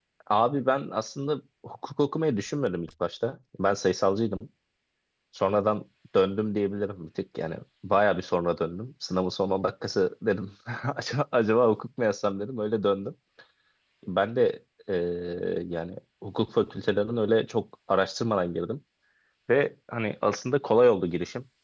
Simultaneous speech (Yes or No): No